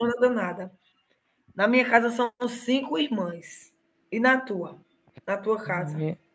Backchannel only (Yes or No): No